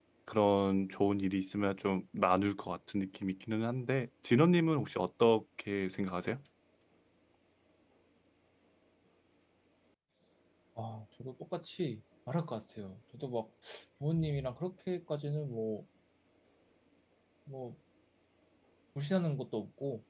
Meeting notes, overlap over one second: none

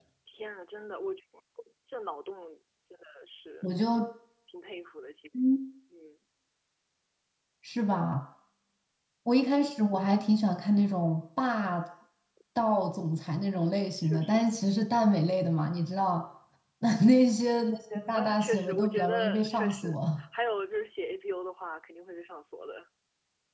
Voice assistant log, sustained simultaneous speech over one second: present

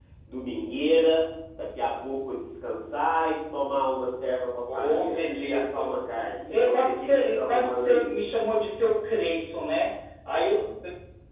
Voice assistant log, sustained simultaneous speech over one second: present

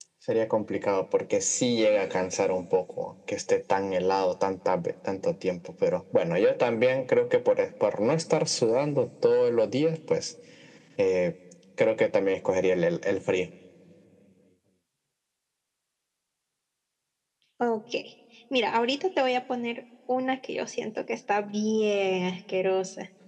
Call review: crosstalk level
none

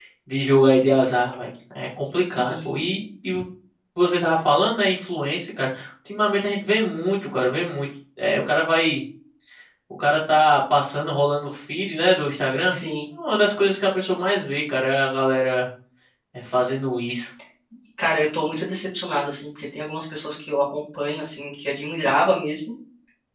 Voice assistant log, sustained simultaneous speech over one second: none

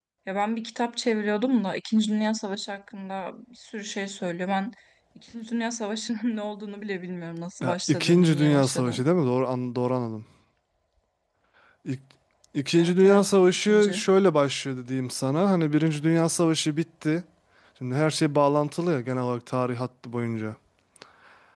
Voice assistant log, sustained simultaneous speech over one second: present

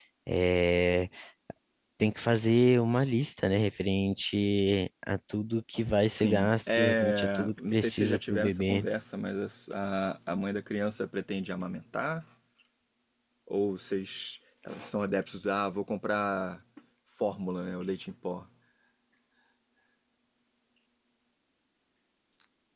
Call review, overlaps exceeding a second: present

